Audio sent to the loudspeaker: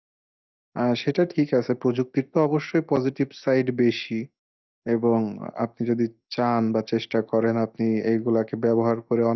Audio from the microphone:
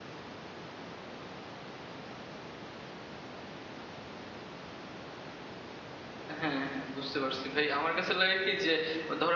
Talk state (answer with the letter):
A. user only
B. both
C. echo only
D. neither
A